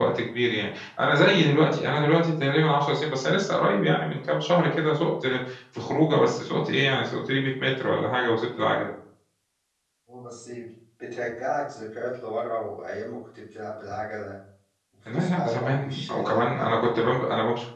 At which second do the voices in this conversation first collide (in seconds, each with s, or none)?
15.1 s